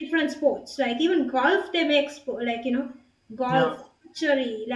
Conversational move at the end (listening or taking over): listening